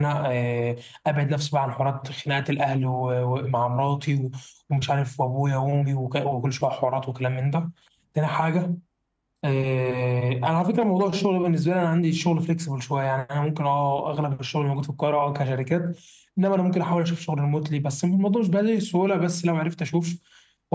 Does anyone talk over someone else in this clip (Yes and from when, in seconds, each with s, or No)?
No